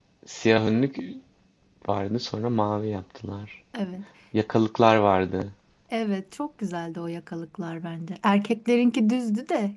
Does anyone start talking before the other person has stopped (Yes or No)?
No